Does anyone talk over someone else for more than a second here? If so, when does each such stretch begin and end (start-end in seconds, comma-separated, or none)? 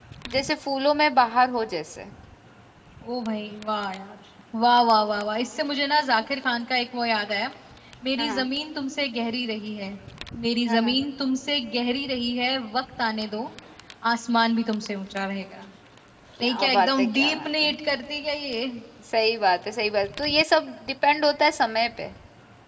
16.4-17.7